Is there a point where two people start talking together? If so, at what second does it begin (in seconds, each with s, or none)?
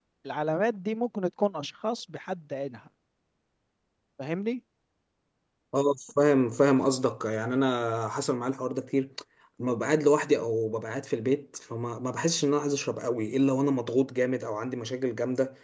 none